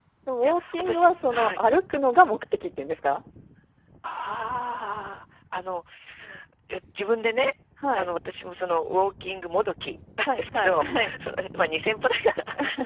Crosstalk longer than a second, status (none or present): present